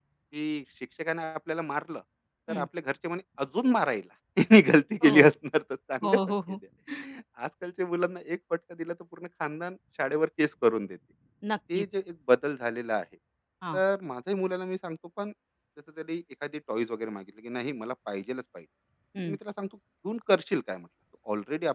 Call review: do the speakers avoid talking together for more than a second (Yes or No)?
Yes